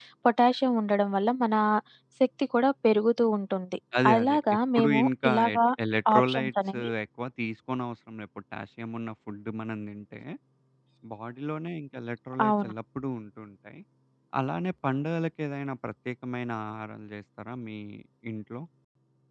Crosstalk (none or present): present